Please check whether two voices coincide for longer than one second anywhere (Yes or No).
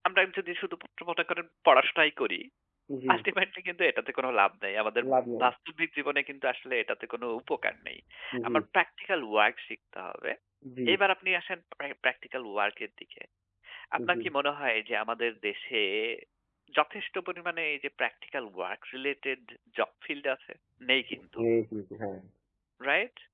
No